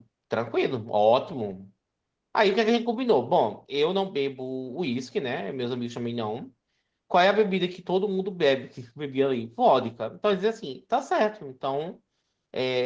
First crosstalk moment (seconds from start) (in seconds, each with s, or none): none